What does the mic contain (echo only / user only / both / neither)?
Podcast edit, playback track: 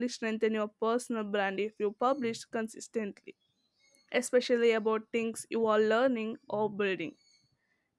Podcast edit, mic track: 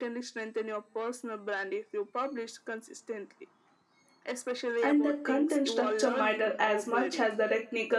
both